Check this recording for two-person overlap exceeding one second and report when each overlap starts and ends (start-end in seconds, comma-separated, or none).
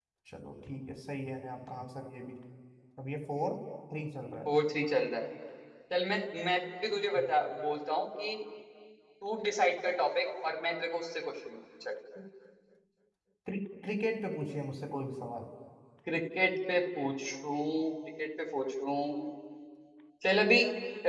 none